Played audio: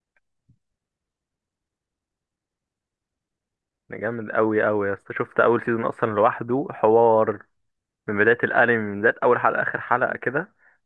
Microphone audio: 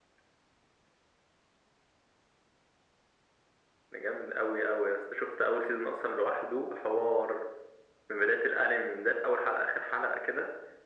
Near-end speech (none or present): none